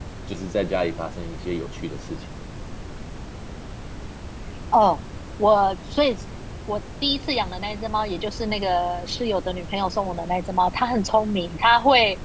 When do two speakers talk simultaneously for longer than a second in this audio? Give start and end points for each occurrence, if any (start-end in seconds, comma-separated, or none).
none